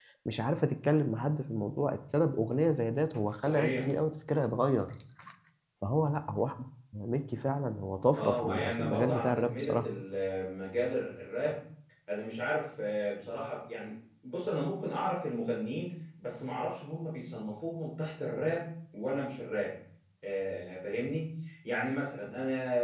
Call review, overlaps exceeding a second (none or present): present